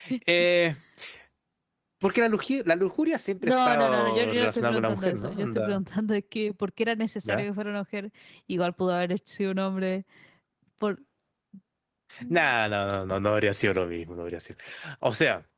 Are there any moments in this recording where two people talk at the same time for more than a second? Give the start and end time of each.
3.4-5.8

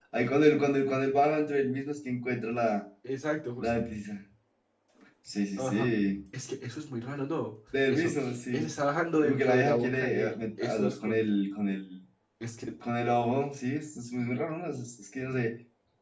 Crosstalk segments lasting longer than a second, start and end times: 9.2-11.2

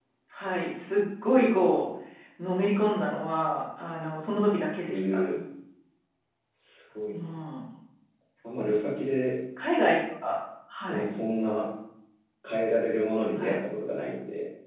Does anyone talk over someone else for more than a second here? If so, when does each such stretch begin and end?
none

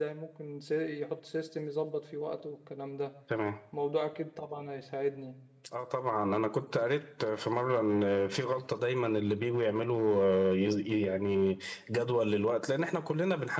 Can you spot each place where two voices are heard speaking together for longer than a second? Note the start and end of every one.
none

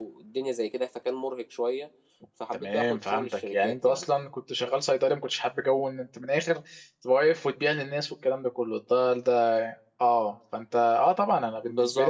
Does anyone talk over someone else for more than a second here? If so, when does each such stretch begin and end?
2.5-4.0

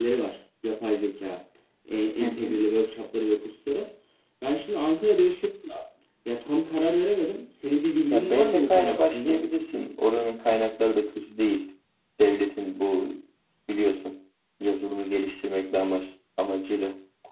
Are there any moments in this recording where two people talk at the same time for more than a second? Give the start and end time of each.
8.1-9.4

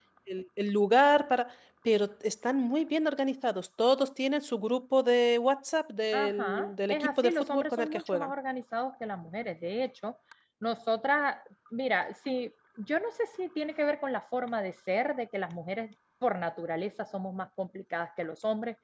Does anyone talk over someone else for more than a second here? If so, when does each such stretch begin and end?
6.1-8.3

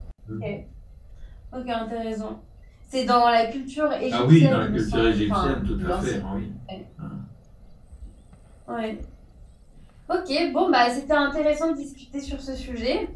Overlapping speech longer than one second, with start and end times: 4.1-6.2

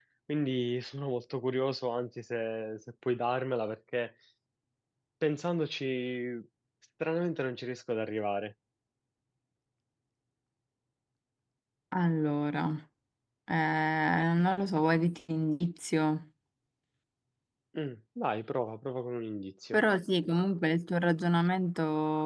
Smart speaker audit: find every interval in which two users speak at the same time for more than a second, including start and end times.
none

